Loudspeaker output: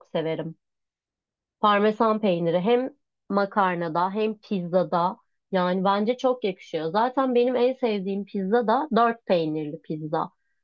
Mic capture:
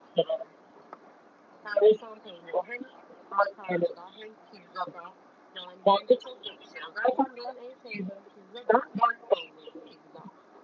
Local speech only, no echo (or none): none